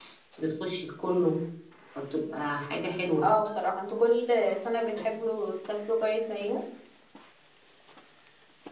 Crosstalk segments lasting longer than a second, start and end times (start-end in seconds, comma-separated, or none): none